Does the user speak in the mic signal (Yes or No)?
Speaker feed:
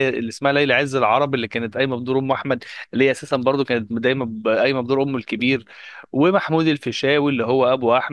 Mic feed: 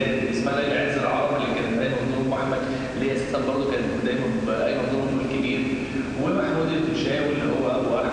No